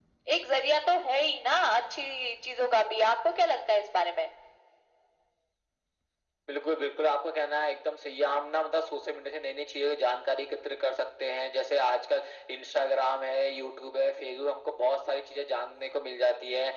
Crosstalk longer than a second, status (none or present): none